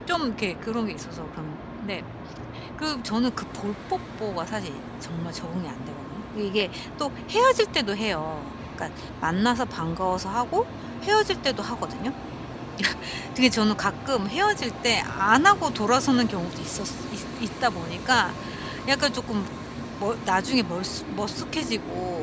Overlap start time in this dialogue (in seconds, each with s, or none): none